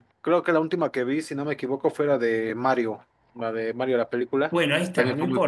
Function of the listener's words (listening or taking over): taking over